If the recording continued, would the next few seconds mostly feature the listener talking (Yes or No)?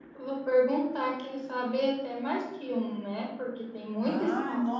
Yes